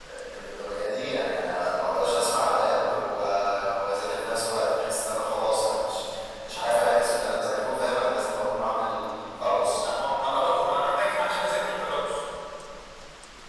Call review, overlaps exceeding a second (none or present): none